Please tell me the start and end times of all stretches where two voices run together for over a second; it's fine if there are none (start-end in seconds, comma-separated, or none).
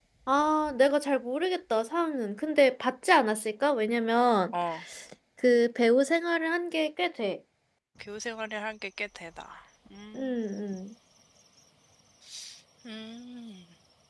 none